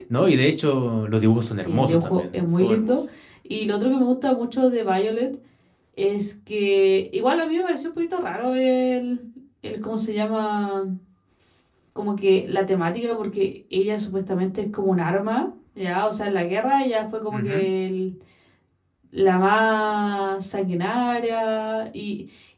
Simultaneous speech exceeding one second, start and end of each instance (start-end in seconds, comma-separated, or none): 1.6-3.0